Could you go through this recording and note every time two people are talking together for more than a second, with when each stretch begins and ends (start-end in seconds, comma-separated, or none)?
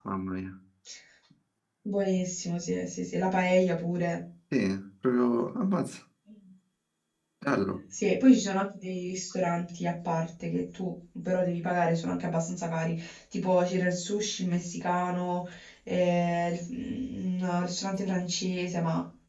none